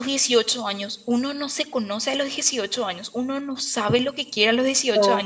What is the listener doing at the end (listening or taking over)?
listening